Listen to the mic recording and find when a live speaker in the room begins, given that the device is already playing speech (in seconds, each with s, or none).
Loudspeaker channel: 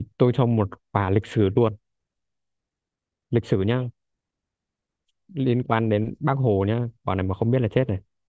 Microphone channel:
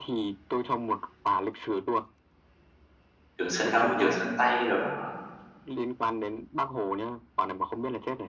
3.4 s